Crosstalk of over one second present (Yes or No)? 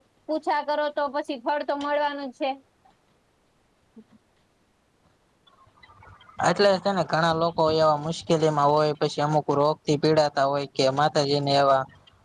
No